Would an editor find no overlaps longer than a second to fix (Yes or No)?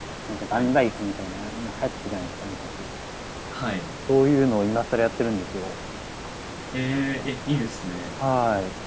Yes